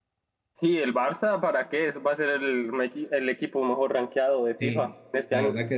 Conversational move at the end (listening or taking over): taking over